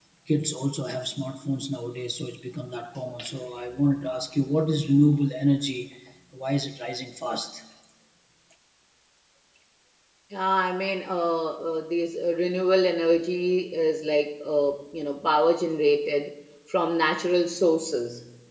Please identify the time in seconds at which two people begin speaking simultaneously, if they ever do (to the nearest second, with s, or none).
none